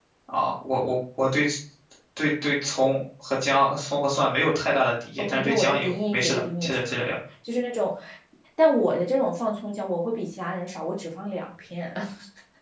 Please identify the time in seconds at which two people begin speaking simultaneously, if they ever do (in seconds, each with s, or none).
5.2 s